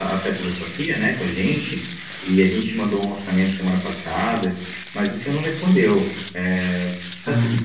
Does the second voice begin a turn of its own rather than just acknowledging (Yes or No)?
No